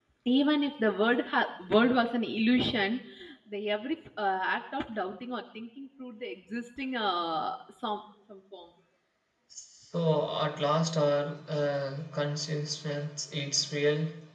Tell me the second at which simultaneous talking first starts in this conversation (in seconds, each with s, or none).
none